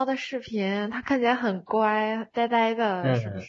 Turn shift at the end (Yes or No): Yes